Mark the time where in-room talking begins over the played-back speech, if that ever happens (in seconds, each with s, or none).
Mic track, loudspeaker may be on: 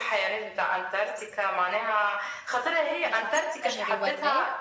3.1 s